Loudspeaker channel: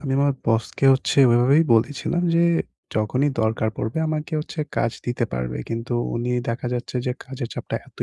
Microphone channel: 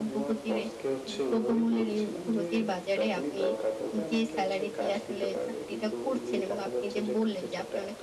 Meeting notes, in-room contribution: present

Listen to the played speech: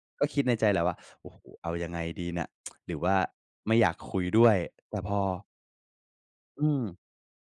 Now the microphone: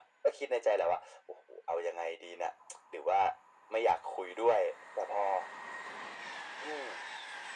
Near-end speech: none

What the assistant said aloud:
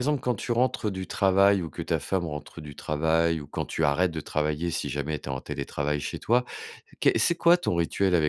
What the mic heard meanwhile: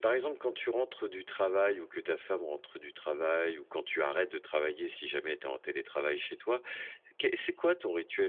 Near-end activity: none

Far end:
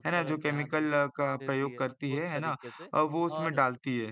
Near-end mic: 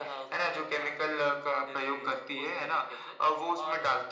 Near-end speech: none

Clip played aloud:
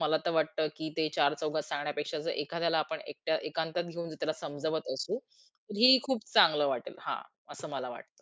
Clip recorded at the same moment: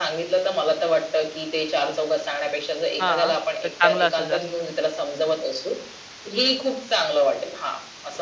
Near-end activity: present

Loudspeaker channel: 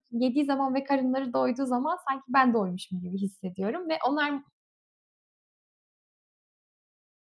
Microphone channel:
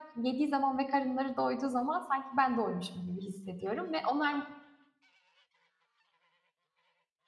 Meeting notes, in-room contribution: none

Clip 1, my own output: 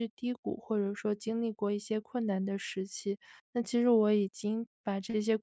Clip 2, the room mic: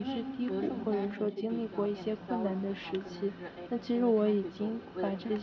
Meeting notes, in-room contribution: present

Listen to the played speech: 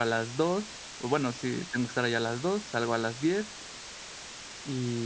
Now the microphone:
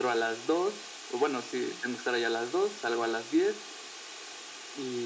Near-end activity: none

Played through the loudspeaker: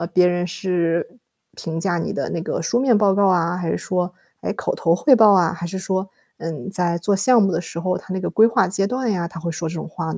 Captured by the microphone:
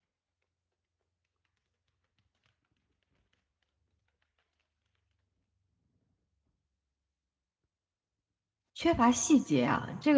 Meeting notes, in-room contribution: present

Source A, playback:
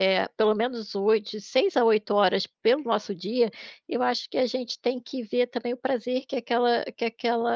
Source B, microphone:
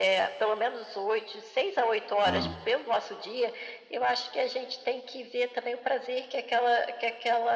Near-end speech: present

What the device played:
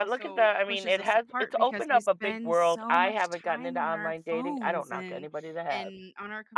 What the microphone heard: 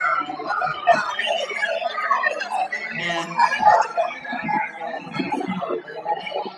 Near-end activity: present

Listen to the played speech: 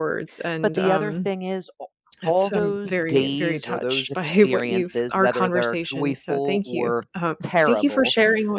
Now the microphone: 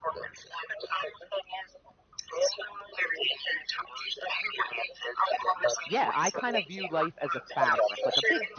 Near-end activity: present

